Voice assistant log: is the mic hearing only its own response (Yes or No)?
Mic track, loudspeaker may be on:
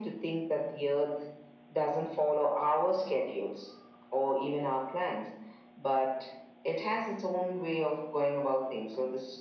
Yes